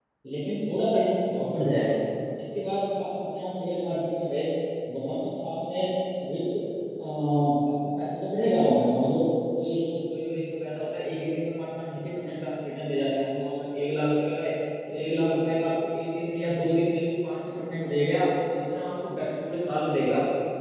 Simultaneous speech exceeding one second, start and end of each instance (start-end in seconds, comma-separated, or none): none